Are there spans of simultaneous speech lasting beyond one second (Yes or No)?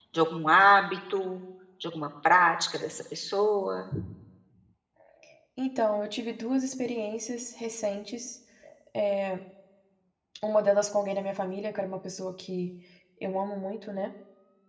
No